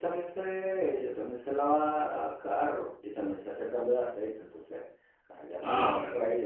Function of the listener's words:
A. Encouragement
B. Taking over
B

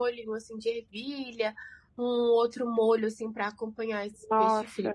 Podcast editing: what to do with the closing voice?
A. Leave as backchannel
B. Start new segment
B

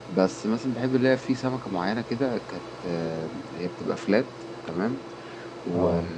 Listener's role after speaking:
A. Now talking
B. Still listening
B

